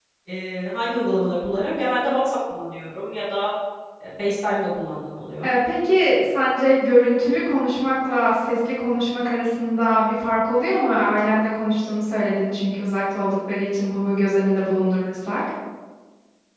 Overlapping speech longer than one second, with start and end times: none

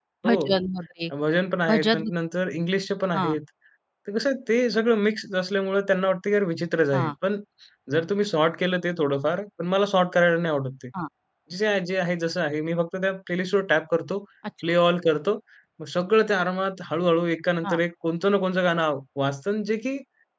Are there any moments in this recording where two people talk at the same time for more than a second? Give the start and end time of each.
none

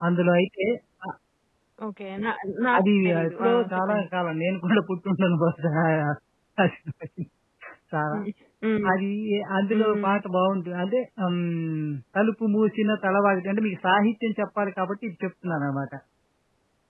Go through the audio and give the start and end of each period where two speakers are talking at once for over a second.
2.8-4.1

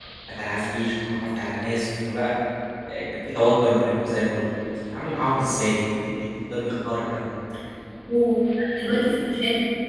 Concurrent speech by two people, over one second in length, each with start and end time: none

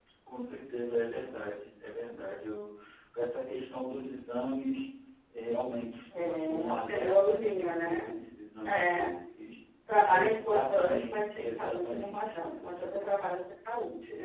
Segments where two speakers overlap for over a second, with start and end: 6.1-8.1, 10.0-12.5

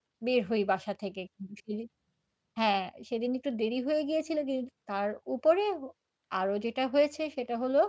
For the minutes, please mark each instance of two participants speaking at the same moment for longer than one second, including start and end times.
none

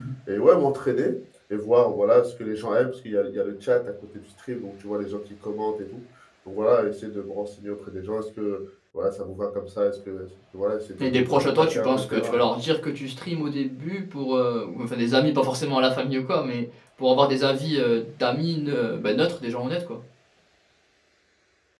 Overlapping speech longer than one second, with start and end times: 11.0-12.4

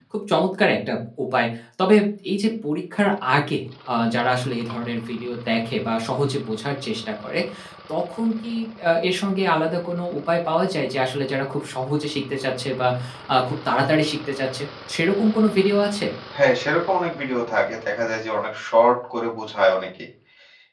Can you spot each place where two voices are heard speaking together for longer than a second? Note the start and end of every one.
none

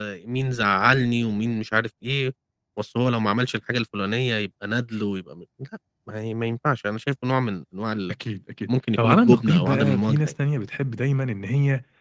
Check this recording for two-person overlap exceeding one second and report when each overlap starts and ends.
9.0-10.2

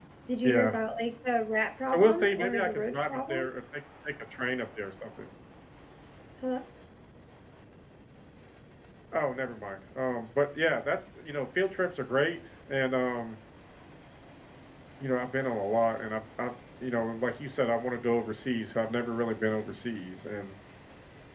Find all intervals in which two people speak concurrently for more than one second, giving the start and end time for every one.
1.9-3.5

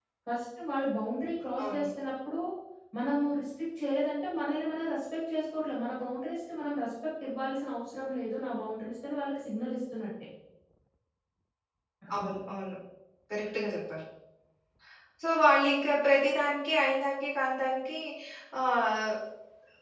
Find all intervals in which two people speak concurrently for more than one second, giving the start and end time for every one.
none

